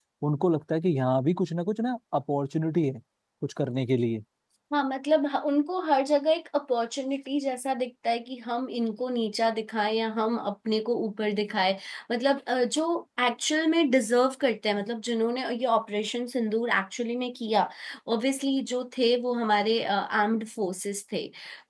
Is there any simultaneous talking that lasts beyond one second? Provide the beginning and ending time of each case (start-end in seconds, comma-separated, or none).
none